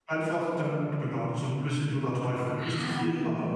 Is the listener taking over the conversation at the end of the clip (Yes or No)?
Yes